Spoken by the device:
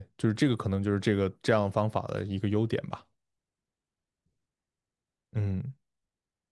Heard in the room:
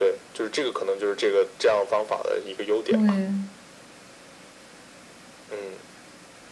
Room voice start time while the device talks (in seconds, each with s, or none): 2.8 s